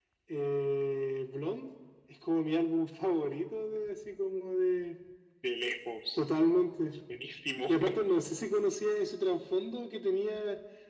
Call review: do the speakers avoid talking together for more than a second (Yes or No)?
Yes